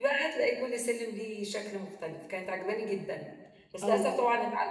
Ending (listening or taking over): listening